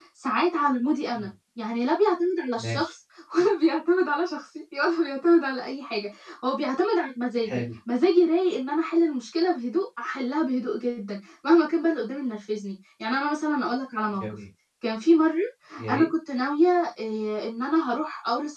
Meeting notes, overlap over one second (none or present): none